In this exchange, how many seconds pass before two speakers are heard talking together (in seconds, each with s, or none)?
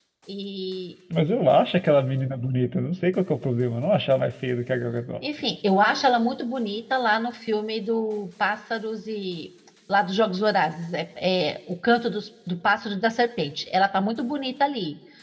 none